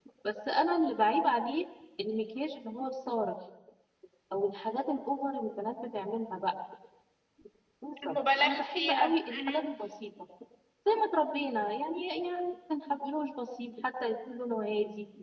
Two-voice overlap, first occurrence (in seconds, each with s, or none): 8.0 s